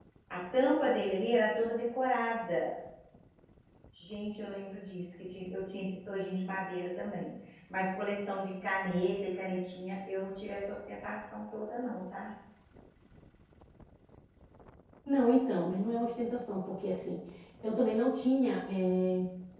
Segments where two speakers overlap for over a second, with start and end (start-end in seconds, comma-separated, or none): none